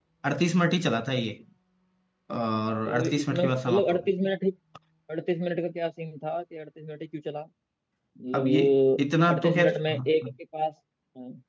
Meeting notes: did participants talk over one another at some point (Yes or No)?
Yes